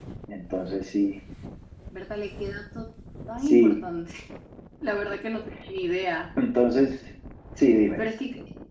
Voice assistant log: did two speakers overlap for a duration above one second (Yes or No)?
No